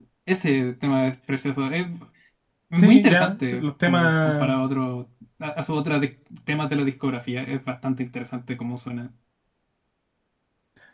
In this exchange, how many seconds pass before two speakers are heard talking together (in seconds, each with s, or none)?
2.8 s